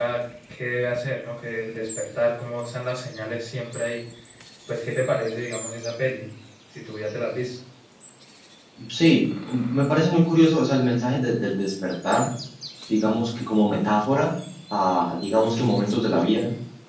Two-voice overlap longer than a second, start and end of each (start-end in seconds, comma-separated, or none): none